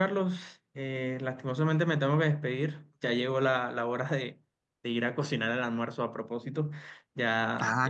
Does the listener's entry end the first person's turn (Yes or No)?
No